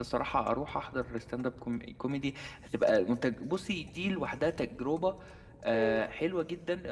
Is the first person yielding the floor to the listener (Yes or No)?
No